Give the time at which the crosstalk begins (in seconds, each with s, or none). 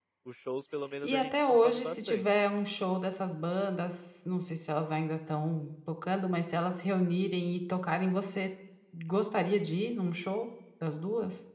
1.0 s